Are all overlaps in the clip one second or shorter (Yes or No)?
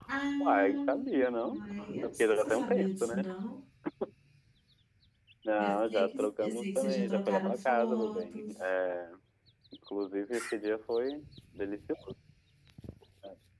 No